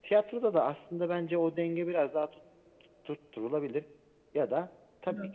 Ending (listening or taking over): listening